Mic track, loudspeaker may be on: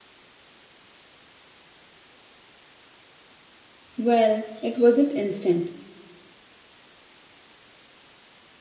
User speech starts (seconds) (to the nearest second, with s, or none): 4 s